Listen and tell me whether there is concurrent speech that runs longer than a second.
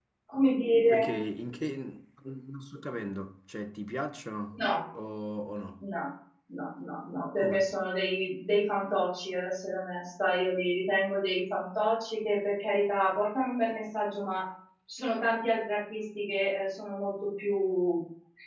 No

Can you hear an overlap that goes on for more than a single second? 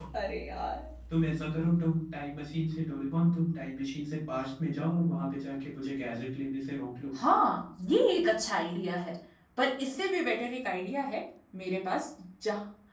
No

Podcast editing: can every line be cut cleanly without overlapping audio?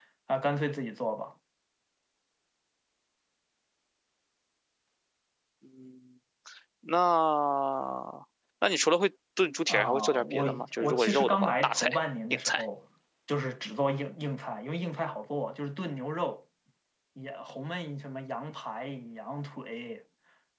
No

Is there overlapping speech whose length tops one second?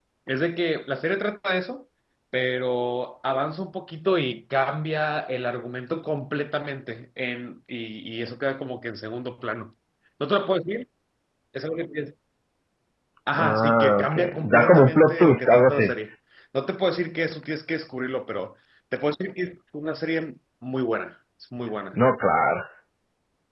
Yes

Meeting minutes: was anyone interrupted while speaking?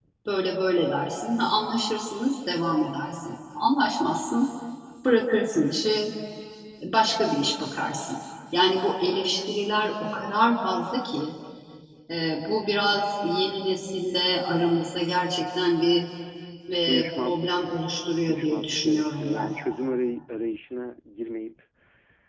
Yes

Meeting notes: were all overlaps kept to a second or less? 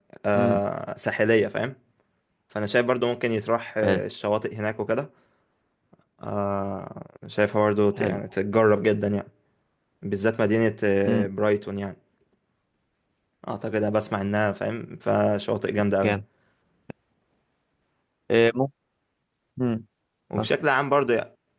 Yes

